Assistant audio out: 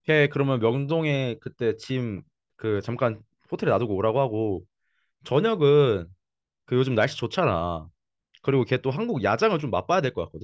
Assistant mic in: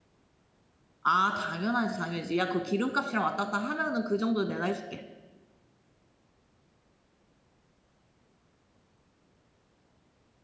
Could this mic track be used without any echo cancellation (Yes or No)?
Yes